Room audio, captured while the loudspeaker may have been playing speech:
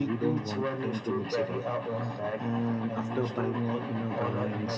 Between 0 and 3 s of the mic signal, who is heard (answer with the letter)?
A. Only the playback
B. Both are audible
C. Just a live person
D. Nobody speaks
B